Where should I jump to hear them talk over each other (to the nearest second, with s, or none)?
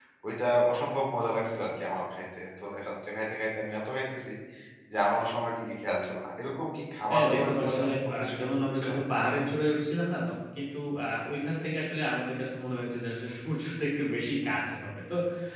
7 s